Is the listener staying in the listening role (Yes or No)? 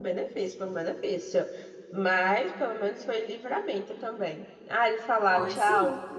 Yes